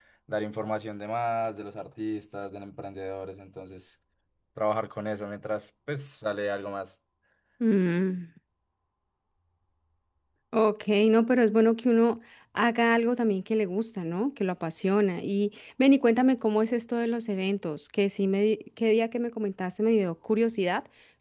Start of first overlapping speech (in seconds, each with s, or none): none